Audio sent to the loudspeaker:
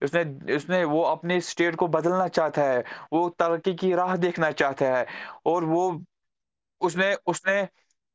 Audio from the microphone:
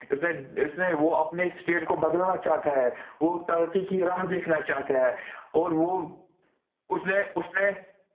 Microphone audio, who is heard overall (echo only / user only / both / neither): echo only